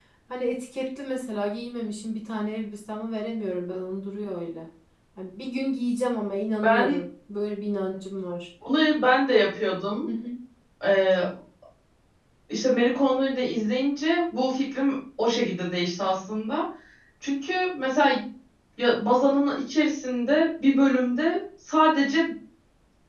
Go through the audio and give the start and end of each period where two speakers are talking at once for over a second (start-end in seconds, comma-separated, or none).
none